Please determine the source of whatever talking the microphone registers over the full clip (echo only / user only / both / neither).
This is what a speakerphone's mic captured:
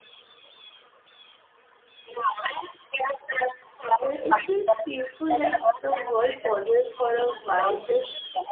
both